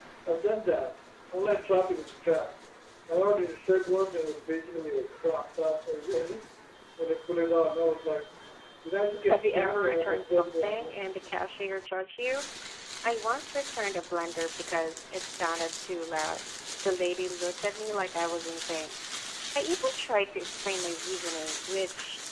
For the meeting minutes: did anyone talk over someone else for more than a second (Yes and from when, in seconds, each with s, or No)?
Yes, from 9.3 s